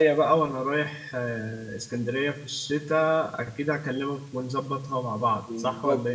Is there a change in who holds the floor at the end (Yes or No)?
Yes